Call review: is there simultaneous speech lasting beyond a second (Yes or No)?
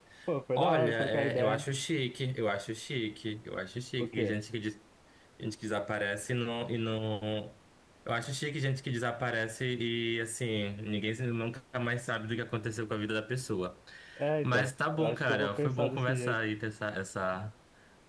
Yes